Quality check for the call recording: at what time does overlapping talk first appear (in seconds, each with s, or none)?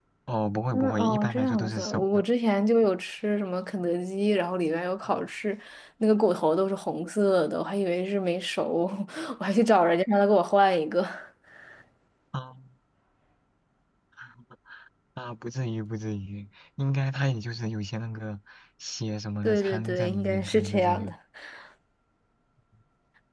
0.7 s